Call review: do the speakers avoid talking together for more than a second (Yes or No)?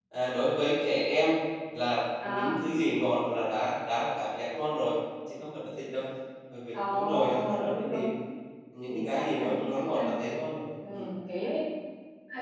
No